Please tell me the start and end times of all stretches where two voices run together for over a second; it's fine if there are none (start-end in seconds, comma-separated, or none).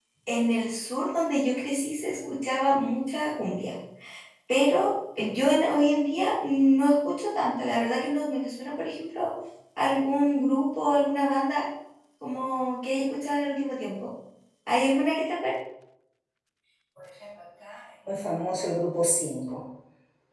none